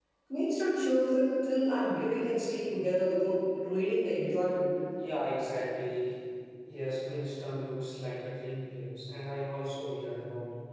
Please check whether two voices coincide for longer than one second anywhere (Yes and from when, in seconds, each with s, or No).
No